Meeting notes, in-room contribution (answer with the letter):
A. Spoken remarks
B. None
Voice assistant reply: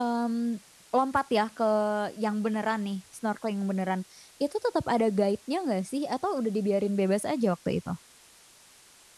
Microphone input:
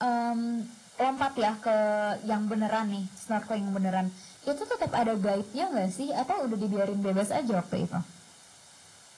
B